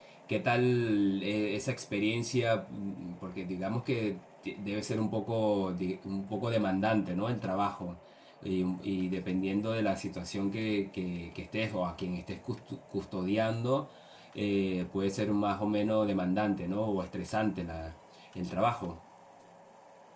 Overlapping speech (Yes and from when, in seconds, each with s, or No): No